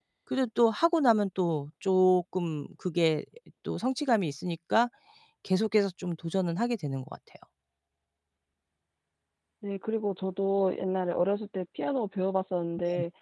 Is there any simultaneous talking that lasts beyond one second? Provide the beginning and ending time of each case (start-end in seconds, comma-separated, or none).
none